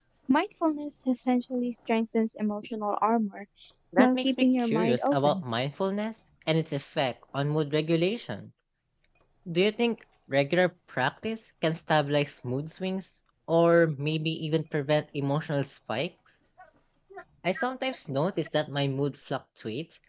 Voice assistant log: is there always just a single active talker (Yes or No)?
No